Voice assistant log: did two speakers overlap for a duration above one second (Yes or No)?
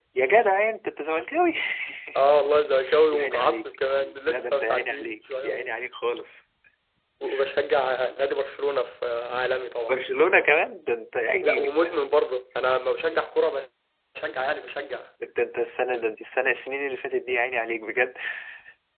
Yes